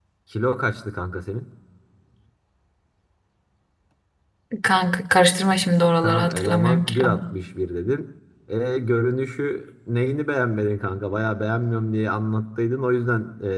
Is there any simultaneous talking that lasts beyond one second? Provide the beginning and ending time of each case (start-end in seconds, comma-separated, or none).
6.0-7.2